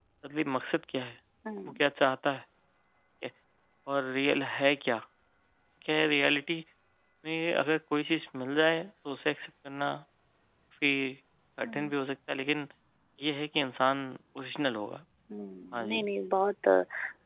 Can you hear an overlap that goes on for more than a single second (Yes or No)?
No